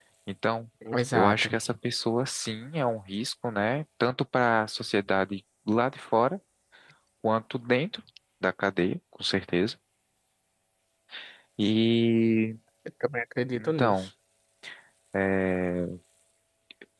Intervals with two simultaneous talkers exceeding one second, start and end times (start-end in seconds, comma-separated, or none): none